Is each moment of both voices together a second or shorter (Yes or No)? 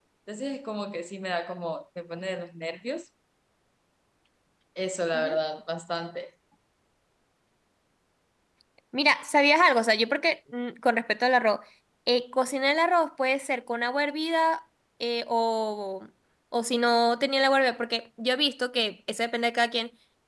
Yes